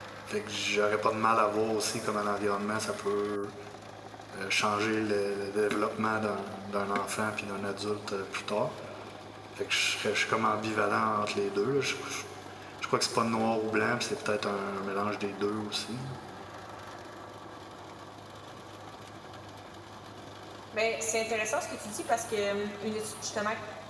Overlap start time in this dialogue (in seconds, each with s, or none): none